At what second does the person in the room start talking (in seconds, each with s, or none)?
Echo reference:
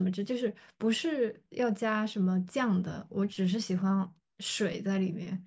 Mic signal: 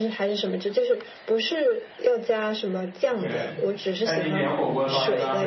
3.0 s